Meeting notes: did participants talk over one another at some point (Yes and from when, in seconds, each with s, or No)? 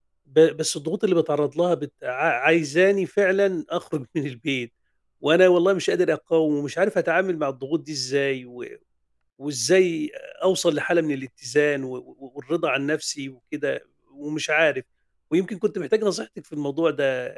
No